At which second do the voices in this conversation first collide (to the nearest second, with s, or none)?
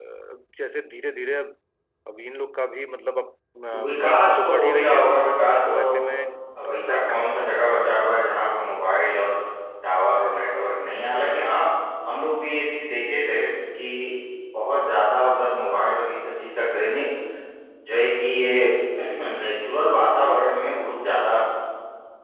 4 s